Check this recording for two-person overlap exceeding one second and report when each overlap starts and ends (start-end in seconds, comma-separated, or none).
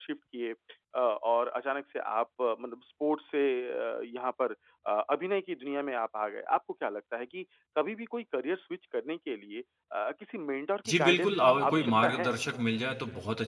10.9-12.3